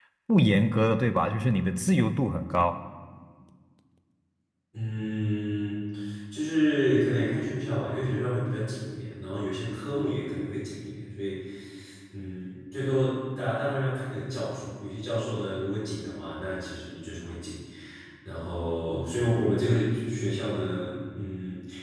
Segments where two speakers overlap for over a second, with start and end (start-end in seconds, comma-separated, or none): none